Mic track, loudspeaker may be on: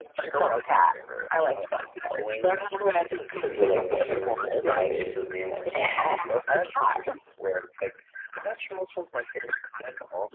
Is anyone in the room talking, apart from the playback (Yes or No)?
Yes